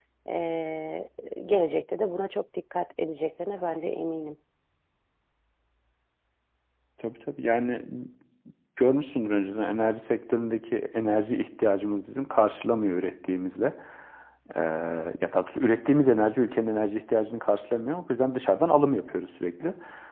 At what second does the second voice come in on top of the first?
none

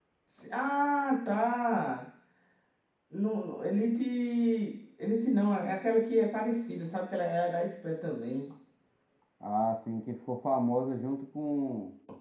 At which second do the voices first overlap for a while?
none

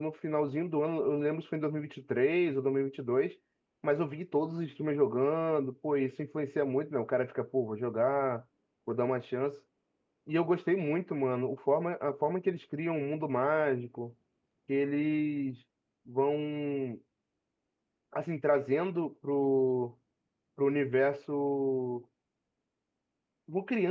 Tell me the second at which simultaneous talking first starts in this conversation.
none

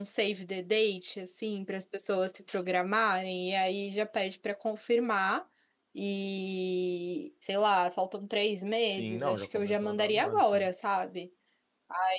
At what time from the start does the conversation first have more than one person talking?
8.9 s

